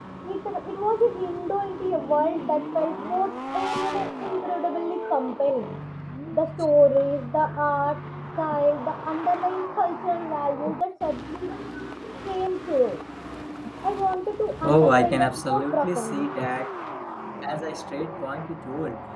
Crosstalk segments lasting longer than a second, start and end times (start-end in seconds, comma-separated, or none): 14.6-16.3